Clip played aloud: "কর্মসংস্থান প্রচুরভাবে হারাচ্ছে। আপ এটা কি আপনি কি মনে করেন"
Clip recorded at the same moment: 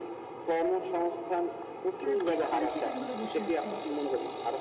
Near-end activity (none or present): present